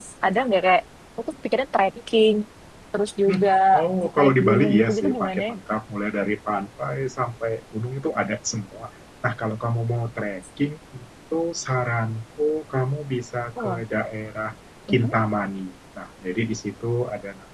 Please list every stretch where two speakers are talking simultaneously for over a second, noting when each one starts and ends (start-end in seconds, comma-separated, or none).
4.2-5.5